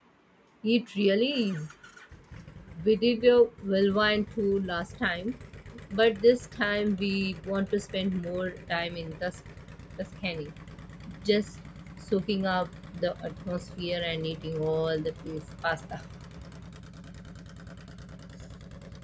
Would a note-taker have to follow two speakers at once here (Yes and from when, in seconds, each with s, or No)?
No